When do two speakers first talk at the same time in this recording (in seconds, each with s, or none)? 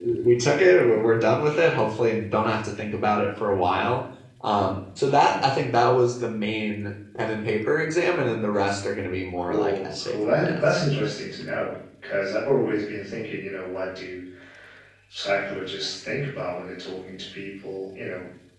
9.4 s